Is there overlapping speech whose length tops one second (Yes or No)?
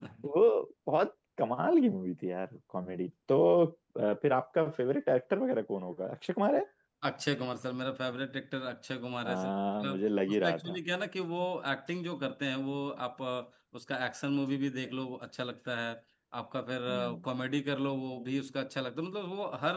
No